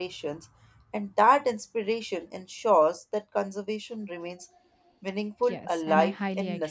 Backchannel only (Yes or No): No